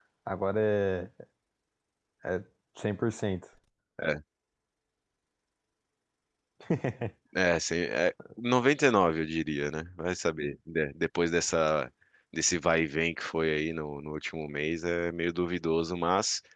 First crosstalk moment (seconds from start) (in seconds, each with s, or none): none